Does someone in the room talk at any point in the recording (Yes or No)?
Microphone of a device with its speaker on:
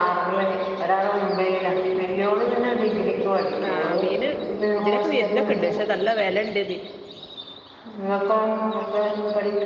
Yes